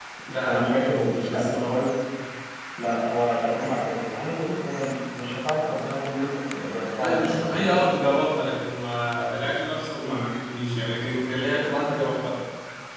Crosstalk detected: Yes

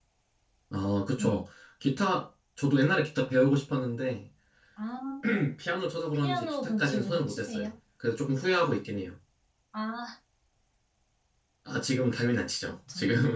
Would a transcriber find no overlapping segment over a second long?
No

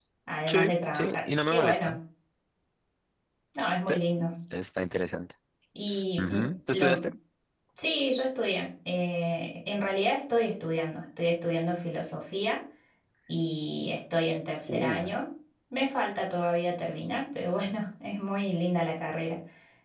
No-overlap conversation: No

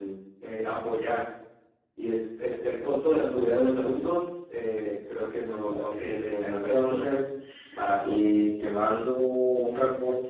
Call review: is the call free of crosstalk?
No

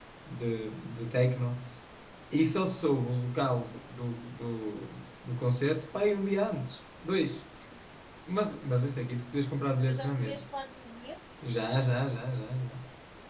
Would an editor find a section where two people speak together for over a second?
No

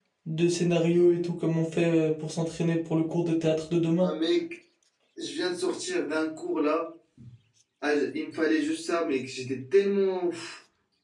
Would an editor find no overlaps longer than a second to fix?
Yes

